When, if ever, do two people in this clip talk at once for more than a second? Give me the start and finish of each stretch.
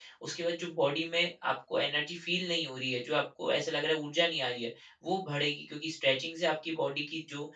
none

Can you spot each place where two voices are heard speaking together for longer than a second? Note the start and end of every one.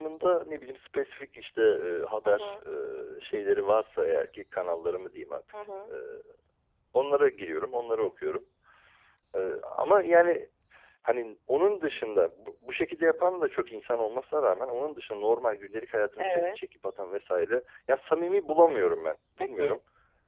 none

